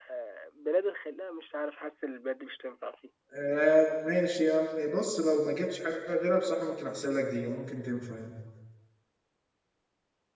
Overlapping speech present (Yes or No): No